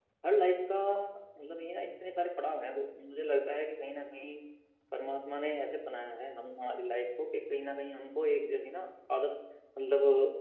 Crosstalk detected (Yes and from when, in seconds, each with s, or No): No